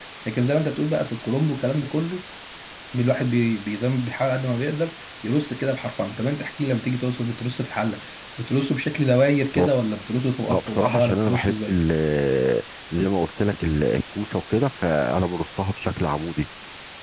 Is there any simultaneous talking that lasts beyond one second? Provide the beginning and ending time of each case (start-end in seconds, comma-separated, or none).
10.5-11.7